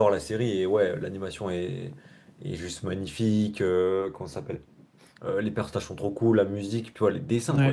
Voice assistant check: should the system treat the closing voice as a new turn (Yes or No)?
No